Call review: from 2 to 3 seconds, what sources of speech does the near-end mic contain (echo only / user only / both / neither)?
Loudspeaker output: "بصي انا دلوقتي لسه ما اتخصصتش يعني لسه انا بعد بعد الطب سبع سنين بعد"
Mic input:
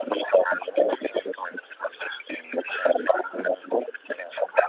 echo only